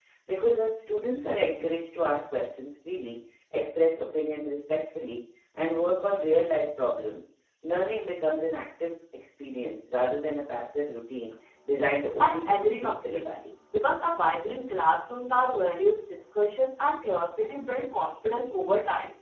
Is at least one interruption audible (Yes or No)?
Yes